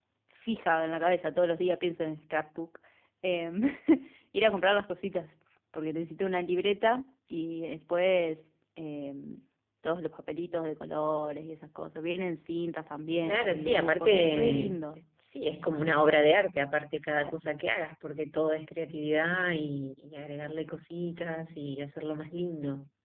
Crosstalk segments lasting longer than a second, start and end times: 13.2-14.8

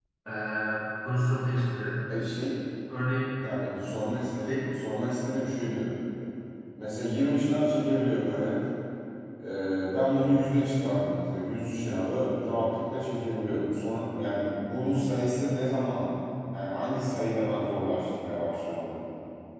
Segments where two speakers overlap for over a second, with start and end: none

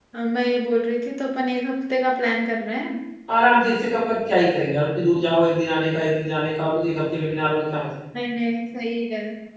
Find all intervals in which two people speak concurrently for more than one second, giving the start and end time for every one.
none

